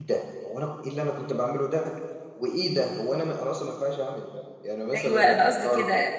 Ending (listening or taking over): taking over